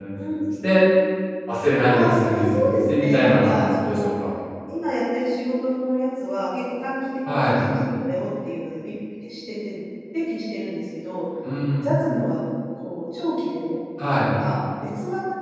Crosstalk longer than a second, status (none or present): present